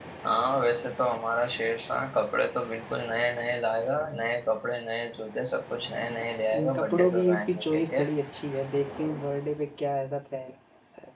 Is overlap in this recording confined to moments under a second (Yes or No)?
No